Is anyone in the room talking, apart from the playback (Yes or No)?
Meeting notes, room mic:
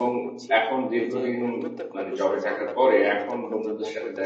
Yes